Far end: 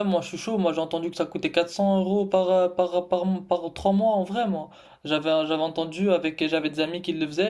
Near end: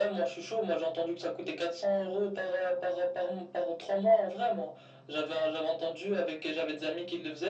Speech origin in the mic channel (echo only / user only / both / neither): echo only